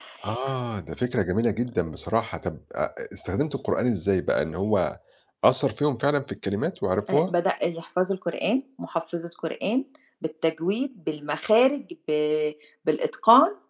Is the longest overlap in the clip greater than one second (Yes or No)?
No